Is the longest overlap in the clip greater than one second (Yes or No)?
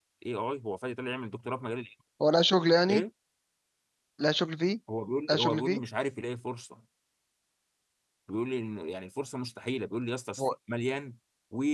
No